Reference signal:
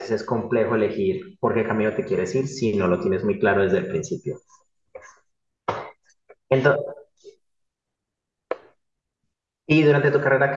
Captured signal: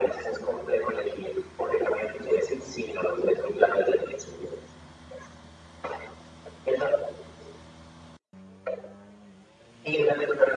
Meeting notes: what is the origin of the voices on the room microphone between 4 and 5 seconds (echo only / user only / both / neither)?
echo only